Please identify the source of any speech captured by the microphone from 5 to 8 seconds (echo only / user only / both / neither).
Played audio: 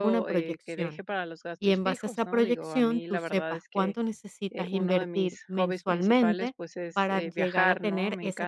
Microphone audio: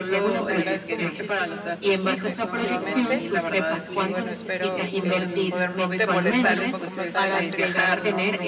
both